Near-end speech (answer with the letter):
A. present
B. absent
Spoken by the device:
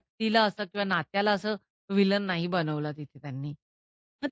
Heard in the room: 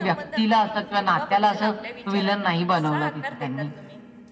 A